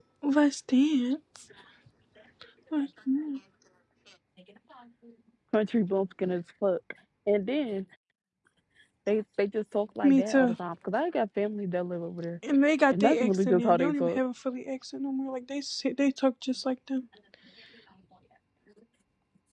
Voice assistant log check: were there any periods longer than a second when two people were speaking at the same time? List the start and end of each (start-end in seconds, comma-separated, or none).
12.9-14.2